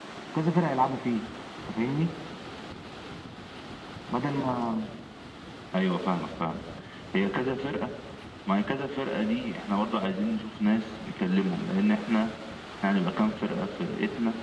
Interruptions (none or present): none